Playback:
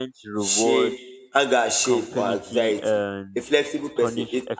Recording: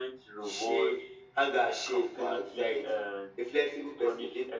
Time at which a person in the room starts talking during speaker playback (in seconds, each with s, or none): none